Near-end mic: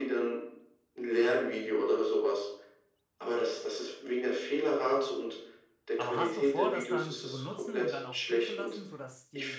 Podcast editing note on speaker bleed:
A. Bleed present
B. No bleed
A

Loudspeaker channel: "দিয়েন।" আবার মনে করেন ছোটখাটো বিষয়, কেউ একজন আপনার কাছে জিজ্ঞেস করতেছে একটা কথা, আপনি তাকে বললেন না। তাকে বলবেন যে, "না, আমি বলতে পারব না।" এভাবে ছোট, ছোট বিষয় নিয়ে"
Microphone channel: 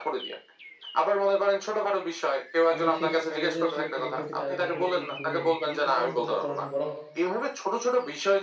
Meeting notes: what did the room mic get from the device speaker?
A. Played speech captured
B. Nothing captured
A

